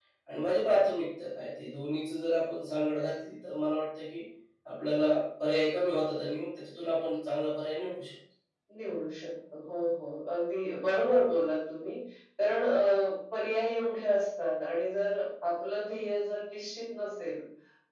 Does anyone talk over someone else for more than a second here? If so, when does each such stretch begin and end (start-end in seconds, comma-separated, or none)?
none